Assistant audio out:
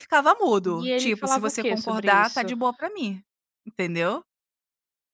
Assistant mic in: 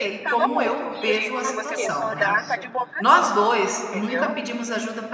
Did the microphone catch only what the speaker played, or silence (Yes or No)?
No